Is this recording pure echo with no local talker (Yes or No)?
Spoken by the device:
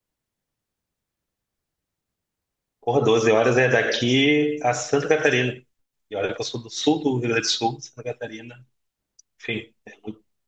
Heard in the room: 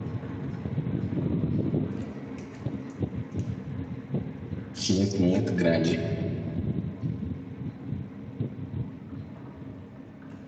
No